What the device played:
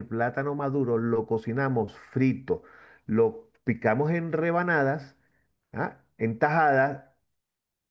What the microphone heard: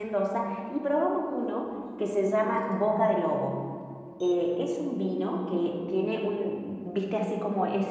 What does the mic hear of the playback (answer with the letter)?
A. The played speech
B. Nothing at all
B